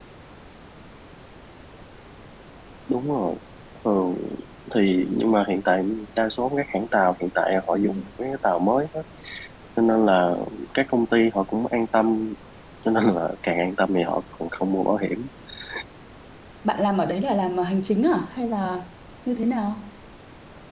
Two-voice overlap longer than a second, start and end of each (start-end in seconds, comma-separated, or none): none